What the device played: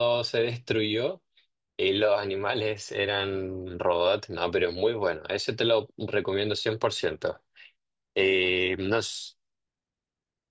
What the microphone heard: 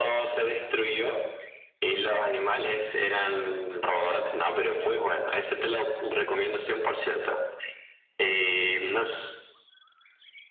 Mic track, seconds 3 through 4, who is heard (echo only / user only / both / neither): echo only